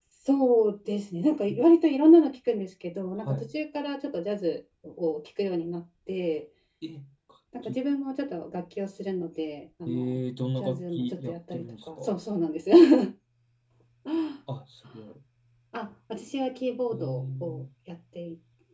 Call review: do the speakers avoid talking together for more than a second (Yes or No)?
No